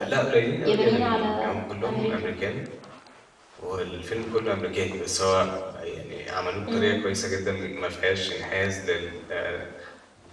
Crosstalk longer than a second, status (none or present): present